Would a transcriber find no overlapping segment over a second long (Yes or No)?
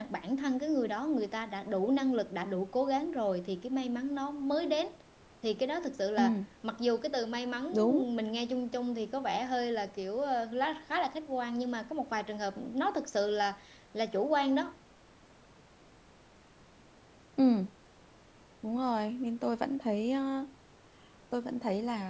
Yes